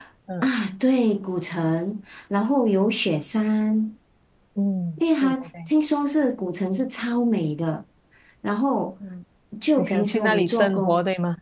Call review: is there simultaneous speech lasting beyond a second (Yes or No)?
Yes